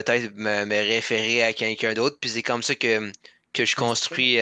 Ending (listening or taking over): listening